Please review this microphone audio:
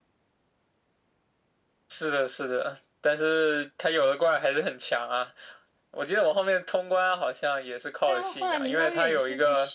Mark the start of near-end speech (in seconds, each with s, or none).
8.0 s